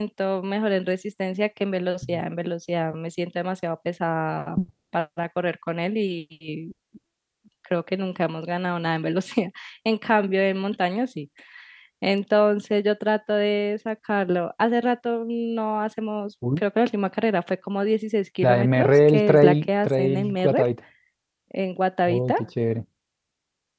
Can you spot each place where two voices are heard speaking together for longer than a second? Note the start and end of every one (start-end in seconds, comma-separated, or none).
18.4-20.7